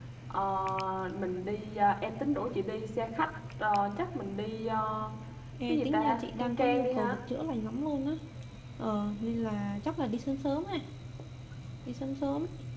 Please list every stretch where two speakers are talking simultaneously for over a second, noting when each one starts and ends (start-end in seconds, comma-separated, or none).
5.7-7.2